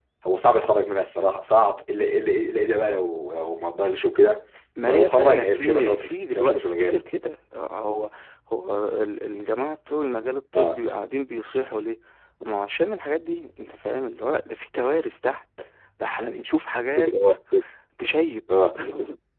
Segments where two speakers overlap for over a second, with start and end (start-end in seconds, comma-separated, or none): 4.9-7.0